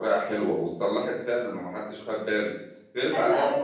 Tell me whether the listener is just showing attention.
No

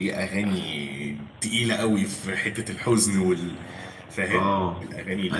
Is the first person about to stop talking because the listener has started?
Yes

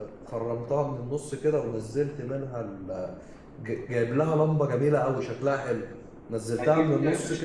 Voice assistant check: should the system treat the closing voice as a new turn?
Yes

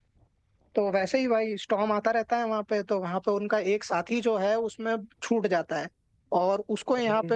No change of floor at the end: Yes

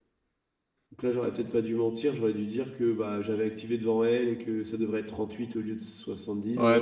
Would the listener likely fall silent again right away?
No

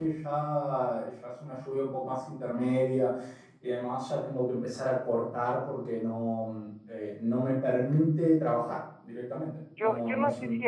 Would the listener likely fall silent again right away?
No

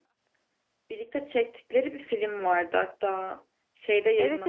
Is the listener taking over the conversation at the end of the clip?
Yes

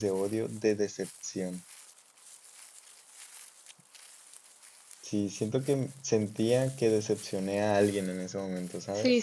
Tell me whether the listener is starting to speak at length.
Yes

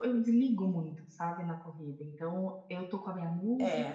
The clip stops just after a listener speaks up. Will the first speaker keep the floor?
Yes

